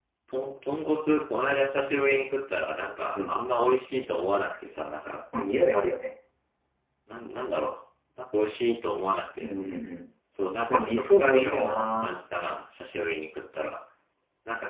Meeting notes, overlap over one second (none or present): present